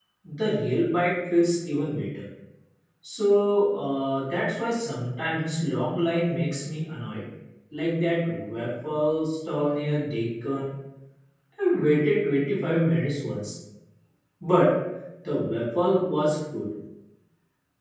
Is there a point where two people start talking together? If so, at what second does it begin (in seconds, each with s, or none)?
none